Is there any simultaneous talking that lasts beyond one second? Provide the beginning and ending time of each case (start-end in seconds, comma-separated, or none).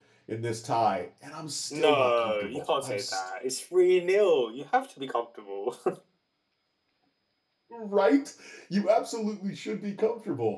1.7-3.2